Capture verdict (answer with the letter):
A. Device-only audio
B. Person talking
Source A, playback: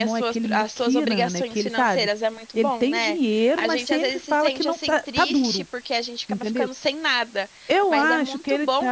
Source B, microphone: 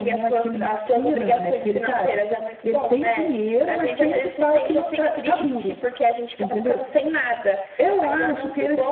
A